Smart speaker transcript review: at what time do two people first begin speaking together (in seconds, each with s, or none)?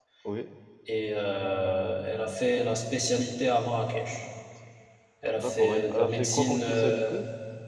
5.4 s